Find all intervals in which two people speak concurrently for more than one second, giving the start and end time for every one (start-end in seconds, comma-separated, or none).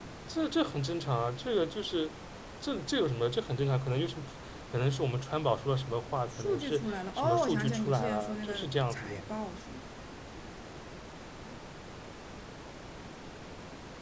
6.3-9.2